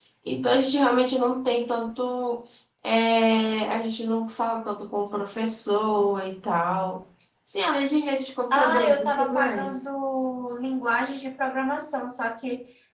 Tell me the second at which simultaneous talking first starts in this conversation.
8.5 s

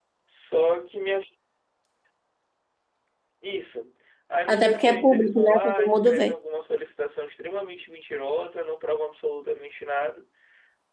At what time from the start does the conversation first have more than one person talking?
4.5 s

